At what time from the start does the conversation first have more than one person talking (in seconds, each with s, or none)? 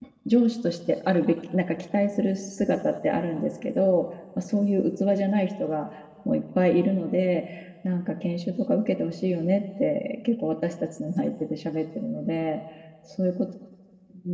none